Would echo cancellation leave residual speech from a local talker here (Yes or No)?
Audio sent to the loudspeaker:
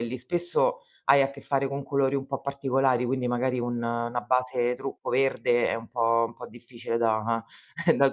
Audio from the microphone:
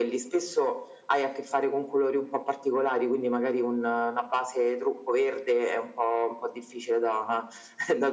No